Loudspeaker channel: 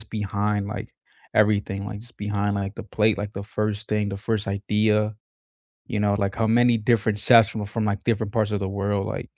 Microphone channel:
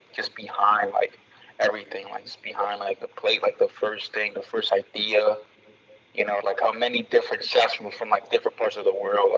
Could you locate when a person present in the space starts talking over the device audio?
none

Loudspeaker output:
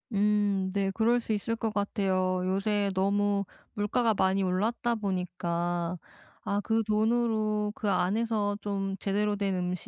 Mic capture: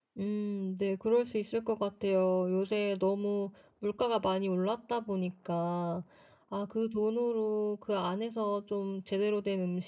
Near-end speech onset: none

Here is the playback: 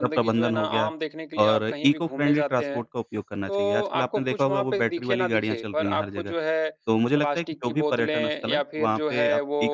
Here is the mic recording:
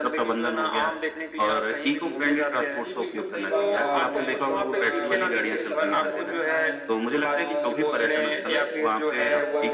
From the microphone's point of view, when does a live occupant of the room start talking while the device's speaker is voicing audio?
1.9 s

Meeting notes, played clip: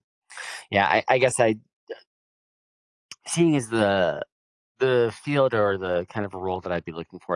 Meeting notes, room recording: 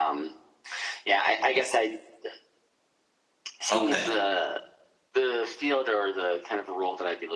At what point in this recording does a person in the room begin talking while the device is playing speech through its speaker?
3.7 s

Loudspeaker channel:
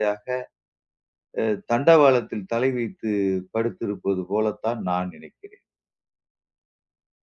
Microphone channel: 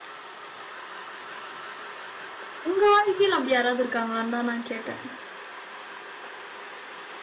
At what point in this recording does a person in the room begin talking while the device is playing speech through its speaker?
2.7 s

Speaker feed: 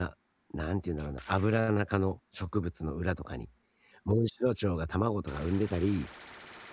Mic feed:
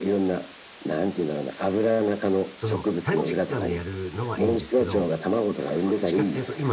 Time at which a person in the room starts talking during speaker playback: 2.5 s

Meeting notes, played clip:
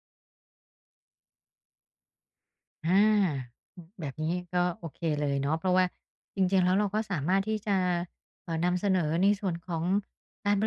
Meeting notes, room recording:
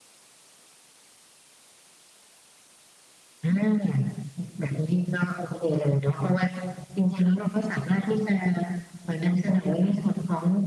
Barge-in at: none

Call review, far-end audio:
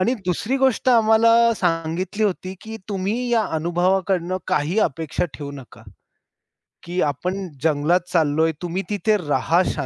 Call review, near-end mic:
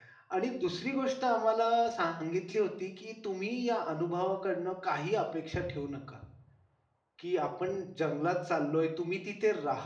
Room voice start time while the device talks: none

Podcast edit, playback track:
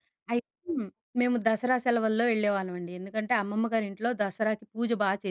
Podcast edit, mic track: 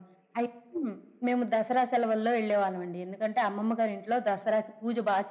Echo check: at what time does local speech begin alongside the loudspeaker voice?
none

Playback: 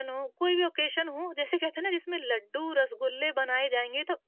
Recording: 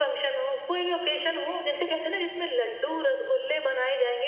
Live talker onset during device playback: none

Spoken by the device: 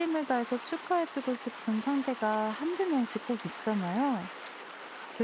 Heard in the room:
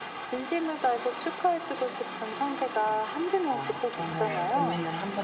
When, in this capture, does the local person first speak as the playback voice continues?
3.5 s

